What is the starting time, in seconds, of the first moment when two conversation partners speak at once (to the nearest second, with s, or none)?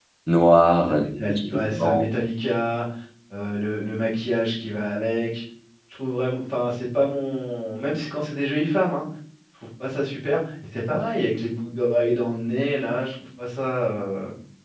1 s